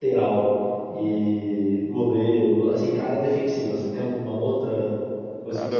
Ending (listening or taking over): taking over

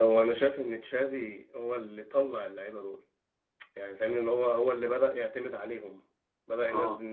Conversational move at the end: listening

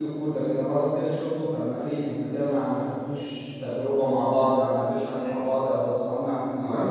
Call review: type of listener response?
taking over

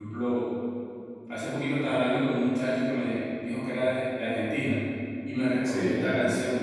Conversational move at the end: listening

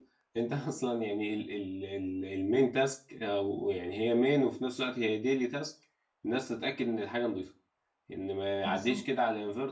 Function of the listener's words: listening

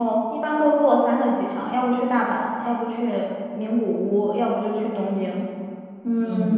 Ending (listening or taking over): taking over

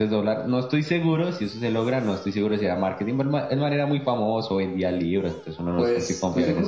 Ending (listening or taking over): taking over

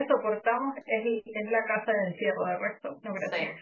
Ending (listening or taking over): taking over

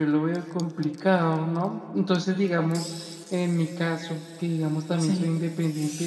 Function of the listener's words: listening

